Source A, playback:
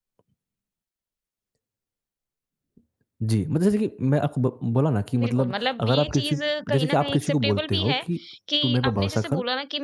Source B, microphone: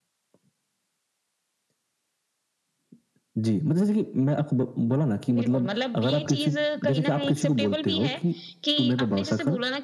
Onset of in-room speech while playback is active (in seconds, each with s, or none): none